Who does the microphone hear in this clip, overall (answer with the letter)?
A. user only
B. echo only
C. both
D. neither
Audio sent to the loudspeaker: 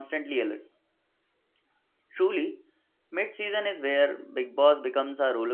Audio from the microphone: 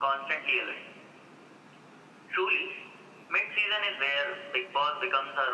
B